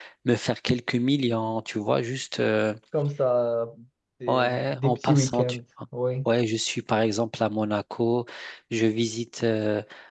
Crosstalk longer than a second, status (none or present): present